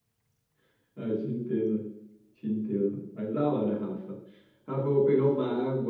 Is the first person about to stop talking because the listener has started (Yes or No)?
No